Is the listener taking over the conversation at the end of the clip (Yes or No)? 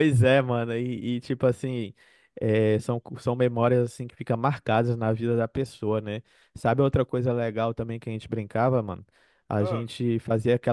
No